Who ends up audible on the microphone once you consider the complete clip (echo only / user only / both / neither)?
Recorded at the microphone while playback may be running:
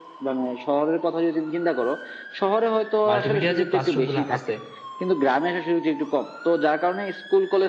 both